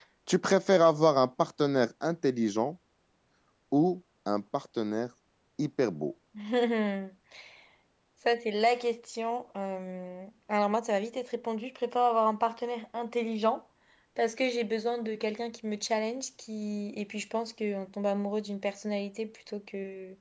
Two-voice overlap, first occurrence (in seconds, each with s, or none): none